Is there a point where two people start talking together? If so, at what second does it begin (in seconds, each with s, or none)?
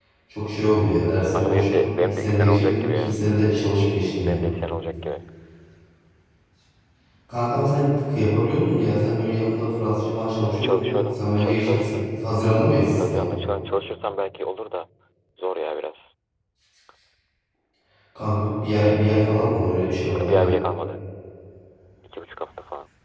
1.3 s